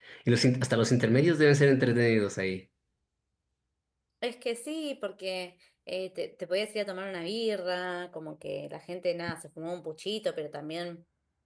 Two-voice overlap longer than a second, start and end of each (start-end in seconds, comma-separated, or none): none